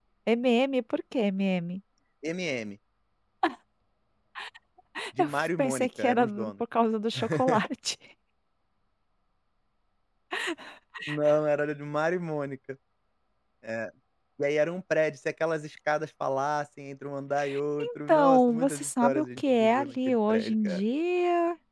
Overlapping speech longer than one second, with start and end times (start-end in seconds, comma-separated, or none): 5.2-6.5, 17.8-20.8